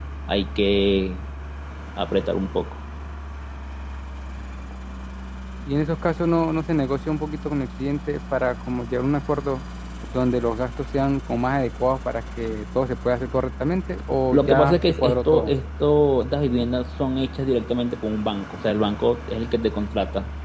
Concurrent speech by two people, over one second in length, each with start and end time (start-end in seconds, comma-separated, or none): 14.3-15.5